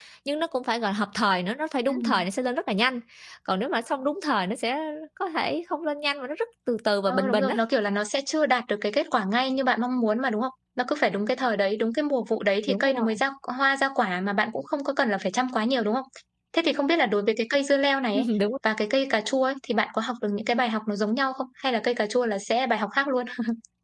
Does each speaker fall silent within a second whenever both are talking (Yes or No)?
Yes